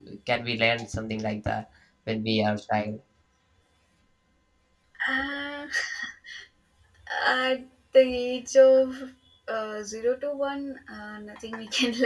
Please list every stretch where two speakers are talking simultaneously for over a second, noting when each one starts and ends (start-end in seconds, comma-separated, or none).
none